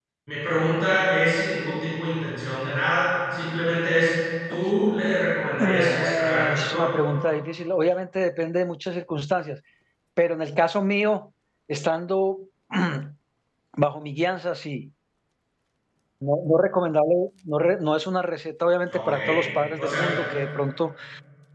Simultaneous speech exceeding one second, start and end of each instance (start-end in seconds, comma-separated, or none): 5.6-6.9